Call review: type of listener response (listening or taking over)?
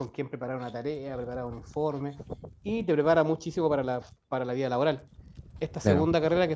listening